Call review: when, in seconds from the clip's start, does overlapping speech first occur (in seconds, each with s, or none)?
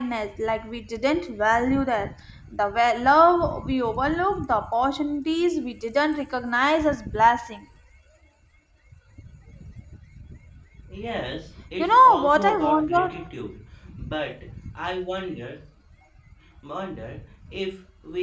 11.8 s